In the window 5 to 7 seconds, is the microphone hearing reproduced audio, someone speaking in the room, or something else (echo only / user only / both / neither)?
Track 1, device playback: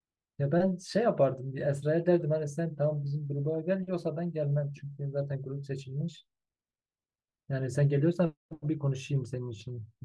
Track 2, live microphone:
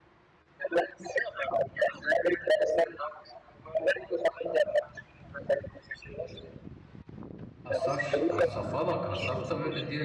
echo only